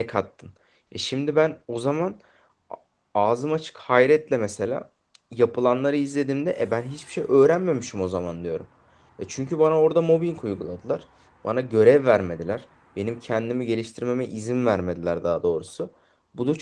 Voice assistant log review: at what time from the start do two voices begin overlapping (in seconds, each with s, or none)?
none